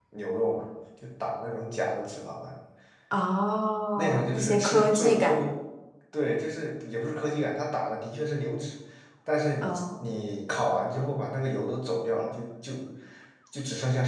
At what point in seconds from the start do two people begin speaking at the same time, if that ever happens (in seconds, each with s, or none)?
4.0 s